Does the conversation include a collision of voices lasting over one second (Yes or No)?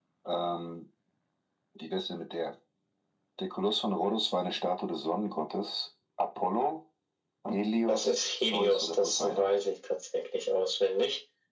Yes